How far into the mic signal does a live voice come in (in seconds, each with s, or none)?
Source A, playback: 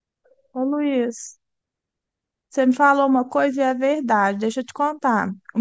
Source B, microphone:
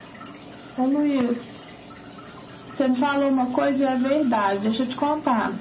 none